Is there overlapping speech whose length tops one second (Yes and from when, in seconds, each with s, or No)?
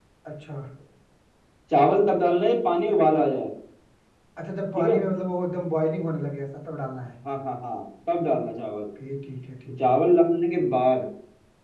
No